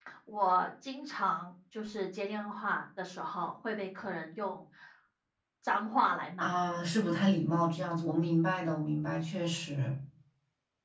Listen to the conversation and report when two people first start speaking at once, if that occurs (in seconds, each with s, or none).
none